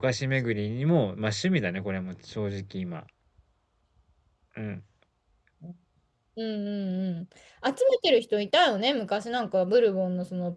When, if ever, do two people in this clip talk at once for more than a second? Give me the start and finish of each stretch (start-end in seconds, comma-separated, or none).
none